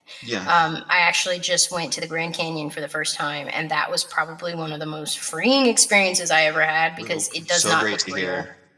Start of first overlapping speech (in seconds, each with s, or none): 7.0 s